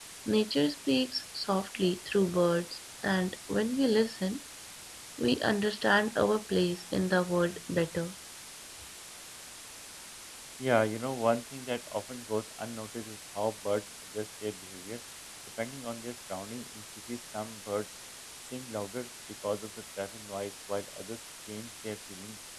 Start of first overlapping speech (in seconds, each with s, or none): none